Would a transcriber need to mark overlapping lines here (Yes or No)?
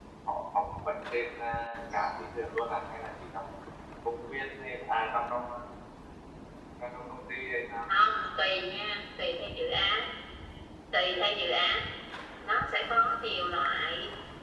No